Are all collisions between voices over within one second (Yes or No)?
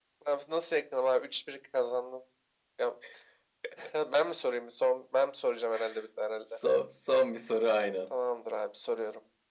Yes